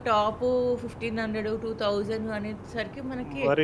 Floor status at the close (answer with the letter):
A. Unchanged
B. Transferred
B